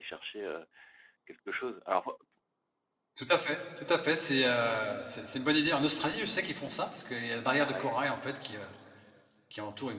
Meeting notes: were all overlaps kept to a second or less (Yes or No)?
Yes